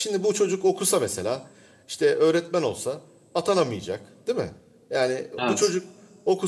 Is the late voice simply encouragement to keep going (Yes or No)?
Yes